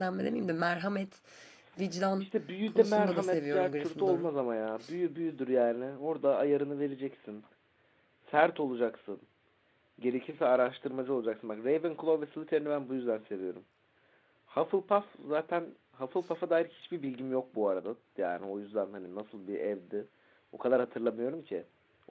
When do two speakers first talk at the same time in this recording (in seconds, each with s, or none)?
2.7 s